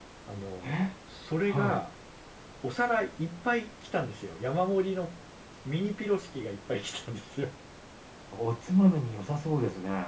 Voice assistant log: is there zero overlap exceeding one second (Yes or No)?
Yes